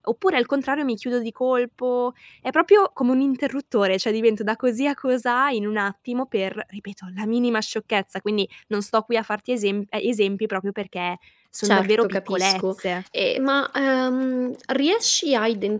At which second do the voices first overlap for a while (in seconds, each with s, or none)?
11.6 s